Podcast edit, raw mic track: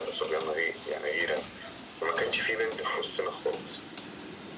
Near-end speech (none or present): none